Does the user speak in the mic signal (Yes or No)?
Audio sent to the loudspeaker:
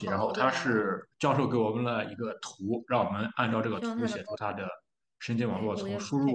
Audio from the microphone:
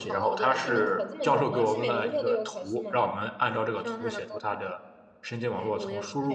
Yes